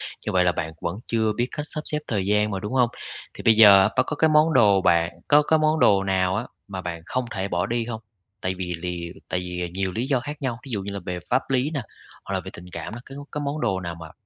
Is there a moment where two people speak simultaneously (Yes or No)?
No